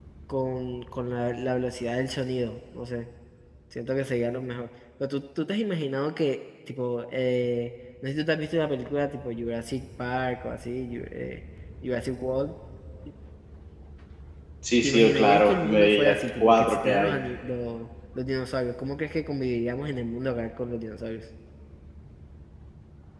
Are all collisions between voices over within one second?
No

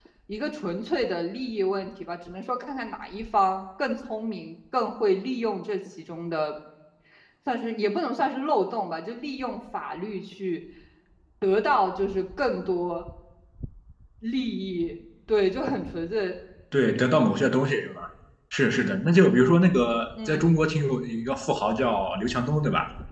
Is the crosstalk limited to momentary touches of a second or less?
Yes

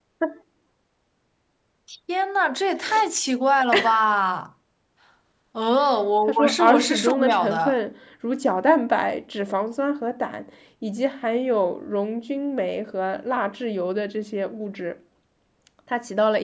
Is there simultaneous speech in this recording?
Yes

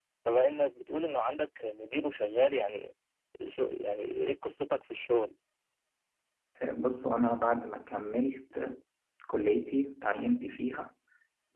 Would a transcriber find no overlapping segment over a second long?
Yes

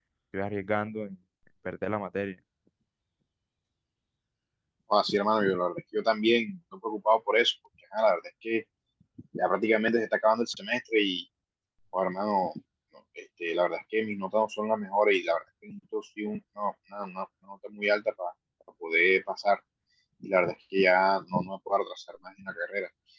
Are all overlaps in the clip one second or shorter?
Yes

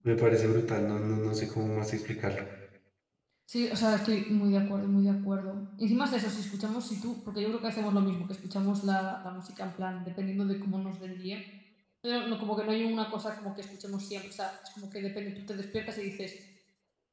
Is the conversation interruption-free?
Yes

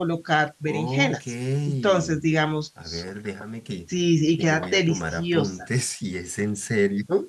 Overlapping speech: Yes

